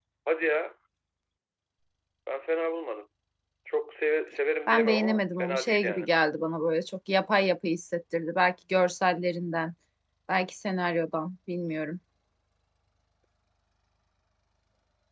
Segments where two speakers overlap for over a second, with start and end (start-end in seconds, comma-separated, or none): 4.7-6.1